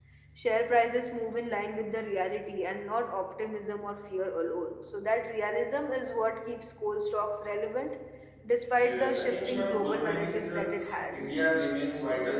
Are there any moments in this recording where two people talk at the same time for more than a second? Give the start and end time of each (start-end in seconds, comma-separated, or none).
8.7-11.3